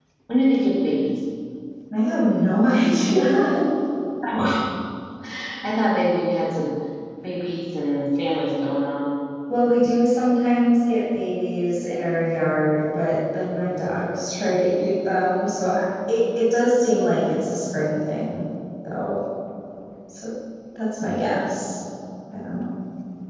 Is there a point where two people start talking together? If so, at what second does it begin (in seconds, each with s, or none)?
none